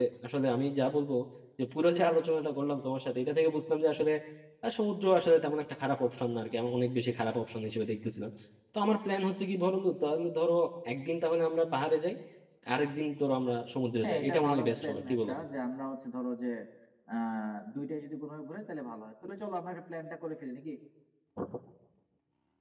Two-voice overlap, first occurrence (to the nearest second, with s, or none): 14 s